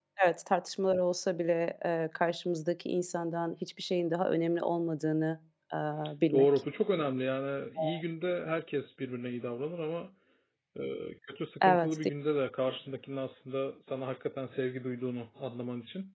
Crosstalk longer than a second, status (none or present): none